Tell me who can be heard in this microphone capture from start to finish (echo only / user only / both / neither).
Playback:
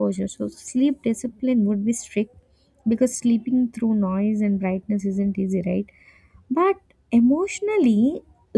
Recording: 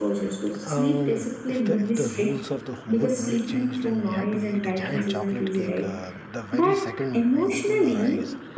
both